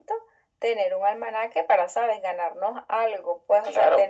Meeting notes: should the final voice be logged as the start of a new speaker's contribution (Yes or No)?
Yes